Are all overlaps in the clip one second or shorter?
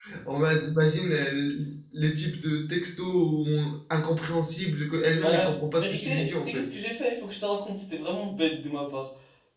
No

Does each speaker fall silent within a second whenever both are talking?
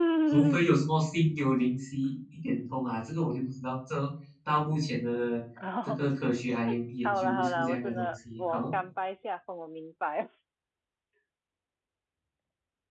No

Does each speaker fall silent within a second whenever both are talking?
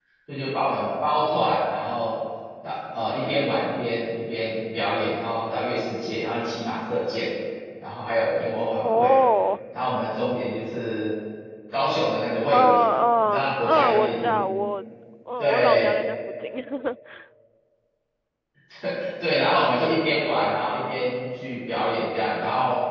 No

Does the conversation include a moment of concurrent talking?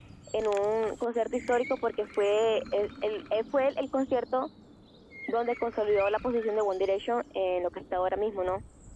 No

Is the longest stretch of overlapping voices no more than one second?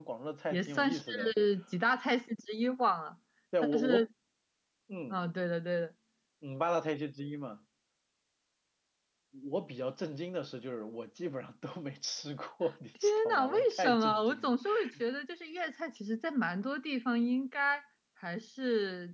No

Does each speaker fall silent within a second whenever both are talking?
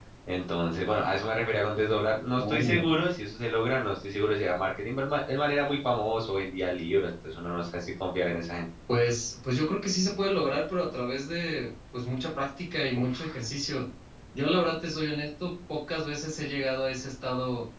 Yes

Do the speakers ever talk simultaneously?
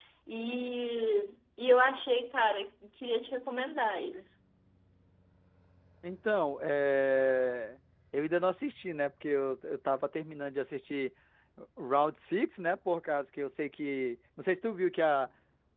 No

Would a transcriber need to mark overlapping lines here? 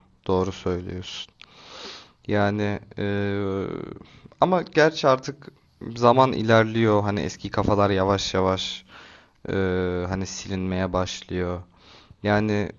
No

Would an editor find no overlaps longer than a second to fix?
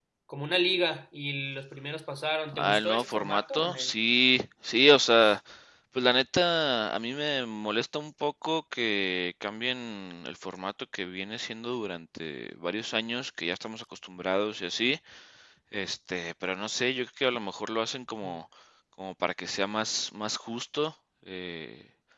No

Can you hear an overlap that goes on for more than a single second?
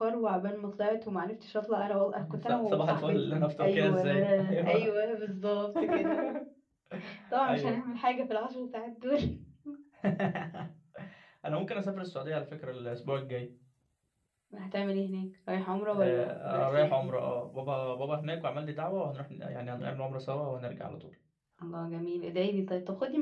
Yes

